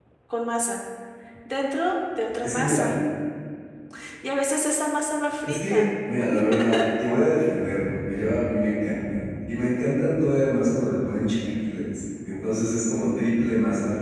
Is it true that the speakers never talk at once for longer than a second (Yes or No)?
Yes